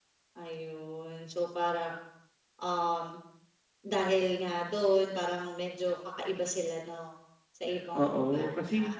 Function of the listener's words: taking over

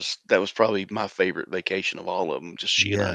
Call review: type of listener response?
taking over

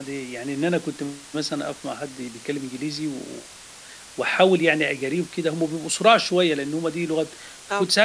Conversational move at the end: listening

